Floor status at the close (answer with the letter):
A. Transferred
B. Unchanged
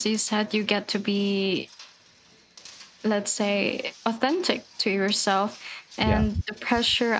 B